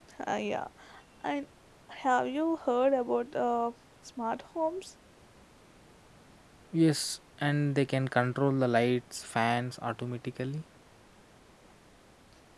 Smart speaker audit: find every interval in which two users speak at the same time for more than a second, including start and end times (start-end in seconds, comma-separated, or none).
none